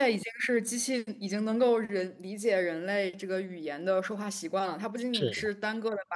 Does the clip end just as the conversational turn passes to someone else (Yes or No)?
No